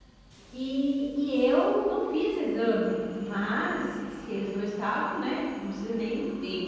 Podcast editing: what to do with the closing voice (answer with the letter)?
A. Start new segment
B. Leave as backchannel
B